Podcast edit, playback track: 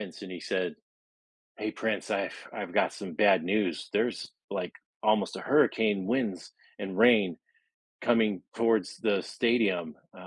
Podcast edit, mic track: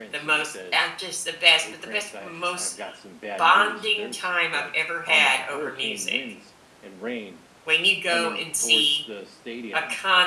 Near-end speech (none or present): present